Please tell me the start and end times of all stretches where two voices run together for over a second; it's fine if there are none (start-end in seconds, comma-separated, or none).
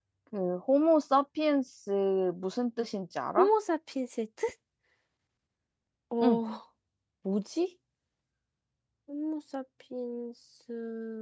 none